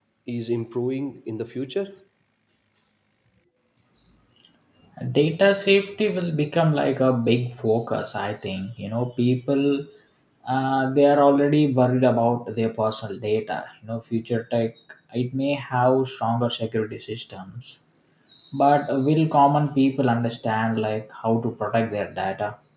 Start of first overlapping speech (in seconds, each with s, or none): none